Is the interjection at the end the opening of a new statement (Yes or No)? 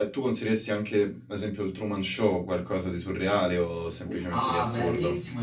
Yes